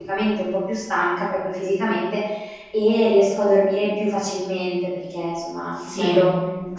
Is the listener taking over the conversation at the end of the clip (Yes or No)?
No